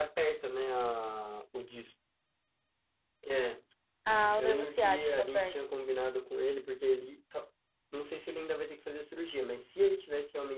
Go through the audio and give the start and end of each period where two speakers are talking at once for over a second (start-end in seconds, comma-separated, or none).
4.4-5.6